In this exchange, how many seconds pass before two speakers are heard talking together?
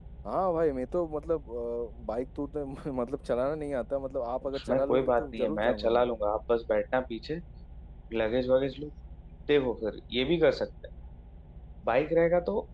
4.4 s

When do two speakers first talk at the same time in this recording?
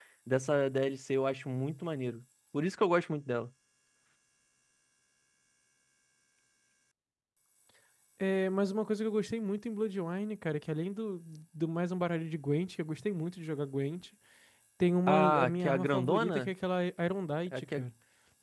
15.1 s

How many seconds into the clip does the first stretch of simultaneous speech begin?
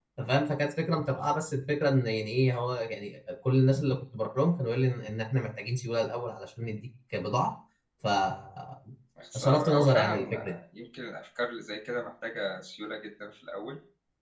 9.4 s

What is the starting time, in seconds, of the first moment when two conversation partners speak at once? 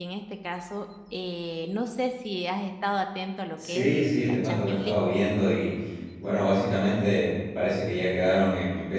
3.5 s

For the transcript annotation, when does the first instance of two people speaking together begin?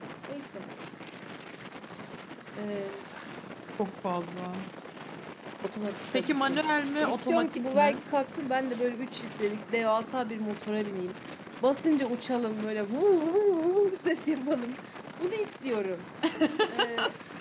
6.1 s

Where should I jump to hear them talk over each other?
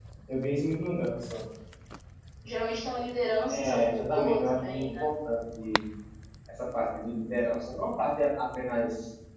3.5 s

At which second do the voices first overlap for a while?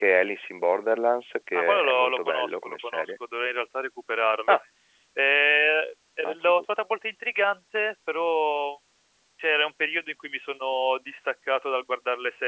1.5 s

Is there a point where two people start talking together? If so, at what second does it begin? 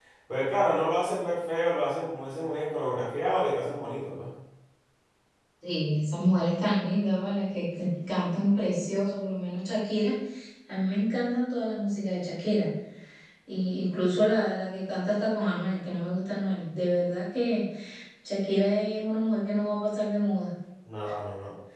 none

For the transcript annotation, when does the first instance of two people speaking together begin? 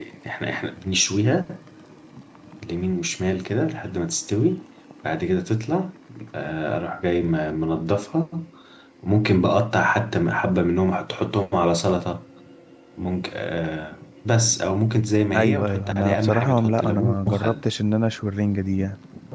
15.3 s

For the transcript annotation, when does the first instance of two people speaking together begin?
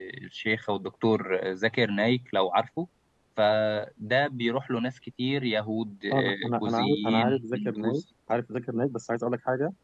6.1 s

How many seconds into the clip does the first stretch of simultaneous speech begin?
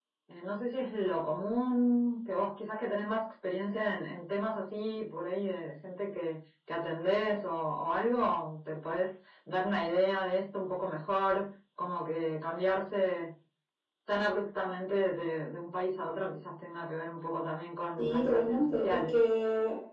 18.0 s

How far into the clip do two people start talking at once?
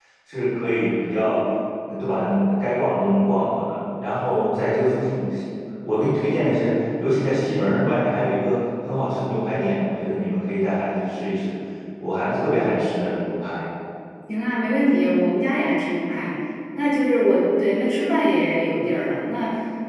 none

